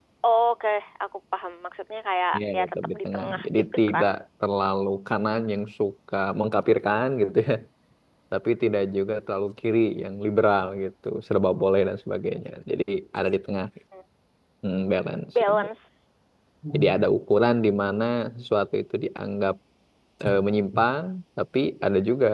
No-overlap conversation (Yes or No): No